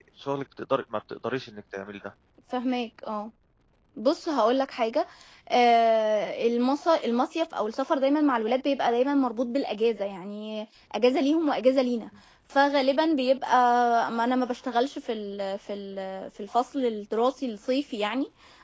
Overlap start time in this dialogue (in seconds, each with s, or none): none